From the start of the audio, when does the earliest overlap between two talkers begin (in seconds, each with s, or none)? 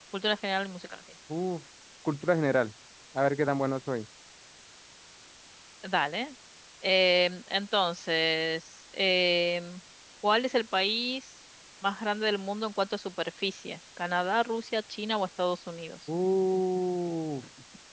none